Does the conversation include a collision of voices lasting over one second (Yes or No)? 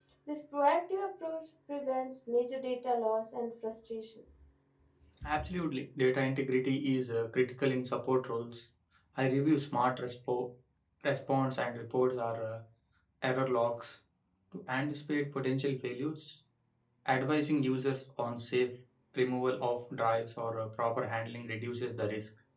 No